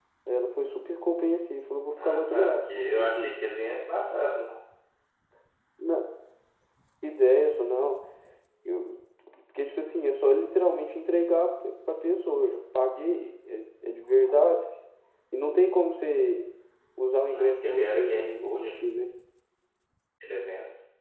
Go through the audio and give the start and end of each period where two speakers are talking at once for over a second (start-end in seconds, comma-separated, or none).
2.0-3.3, 17.2-18.8